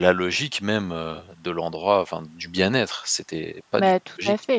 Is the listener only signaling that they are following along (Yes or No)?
No